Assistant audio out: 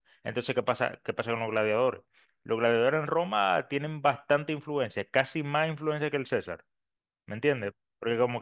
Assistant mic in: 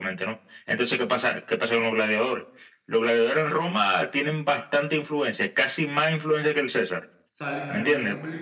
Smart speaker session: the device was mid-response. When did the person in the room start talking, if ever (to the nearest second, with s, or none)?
7 s